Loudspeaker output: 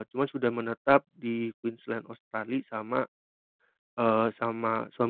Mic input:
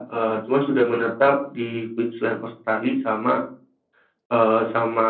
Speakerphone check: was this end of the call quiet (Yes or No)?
Yes